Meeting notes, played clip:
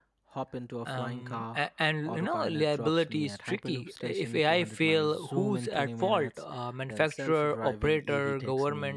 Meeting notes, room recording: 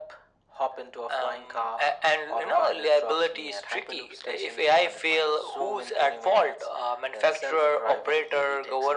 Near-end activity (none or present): none